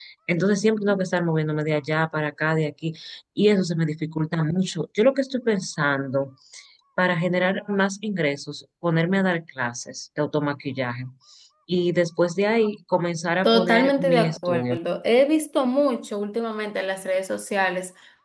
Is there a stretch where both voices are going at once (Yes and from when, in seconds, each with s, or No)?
Yes, from 13.4 s